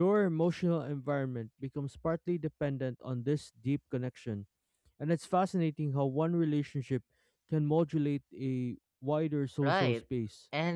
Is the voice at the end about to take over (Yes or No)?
Yes